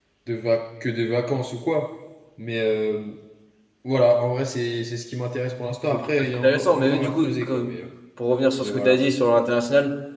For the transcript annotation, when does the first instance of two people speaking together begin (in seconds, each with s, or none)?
5.9 s